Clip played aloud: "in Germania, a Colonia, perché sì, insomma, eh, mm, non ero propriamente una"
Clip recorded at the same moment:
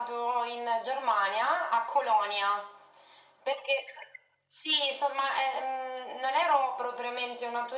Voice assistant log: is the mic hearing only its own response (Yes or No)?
Yes